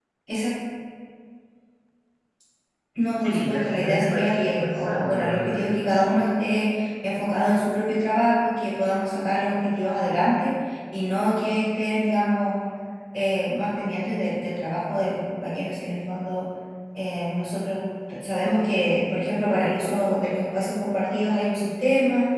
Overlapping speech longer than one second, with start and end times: 3.2-5.6

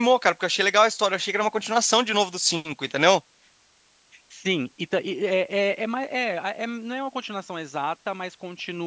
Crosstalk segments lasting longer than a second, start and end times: none

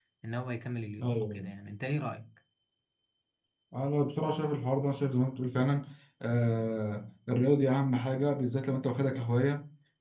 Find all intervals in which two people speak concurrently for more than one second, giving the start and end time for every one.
none

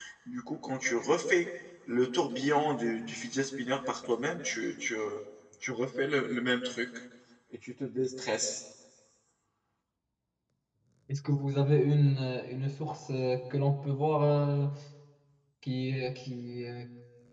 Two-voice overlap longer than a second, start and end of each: none

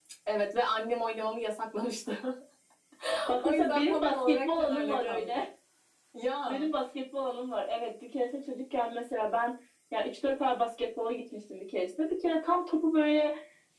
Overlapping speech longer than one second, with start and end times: 3.4-5.4

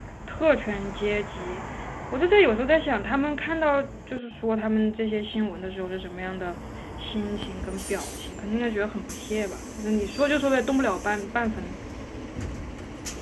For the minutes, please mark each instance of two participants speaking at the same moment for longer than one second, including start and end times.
none

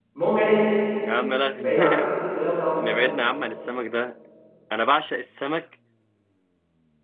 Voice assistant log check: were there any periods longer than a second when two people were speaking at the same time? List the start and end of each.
none

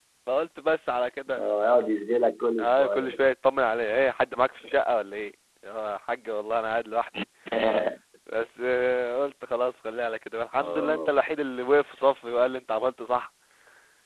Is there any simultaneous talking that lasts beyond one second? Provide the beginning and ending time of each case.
none

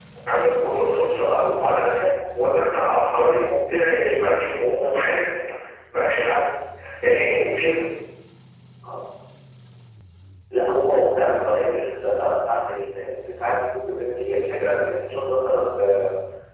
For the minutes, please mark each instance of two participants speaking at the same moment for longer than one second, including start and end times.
none

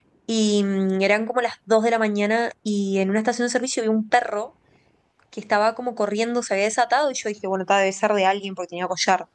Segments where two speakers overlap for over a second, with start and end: none

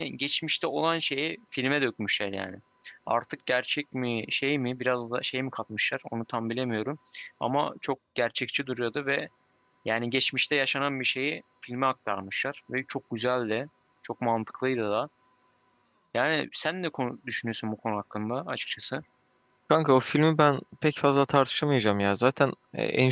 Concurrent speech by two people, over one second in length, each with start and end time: none

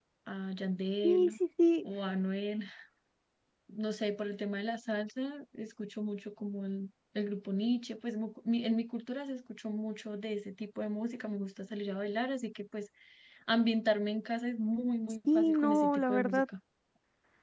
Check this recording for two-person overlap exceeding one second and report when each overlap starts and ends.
15.3-16.5

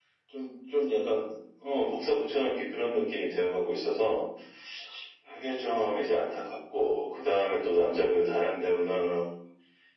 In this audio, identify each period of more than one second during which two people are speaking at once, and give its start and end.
none

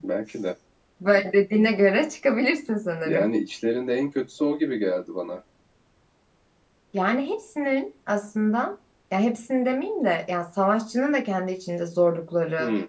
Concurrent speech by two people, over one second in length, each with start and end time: none

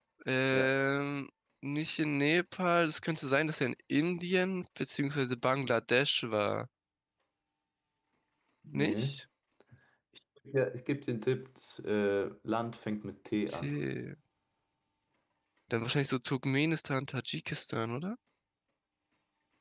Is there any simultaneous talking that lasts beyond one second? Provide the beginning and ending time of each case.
none

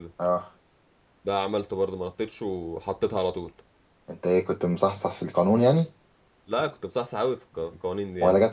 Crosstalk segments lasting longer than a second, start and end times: none

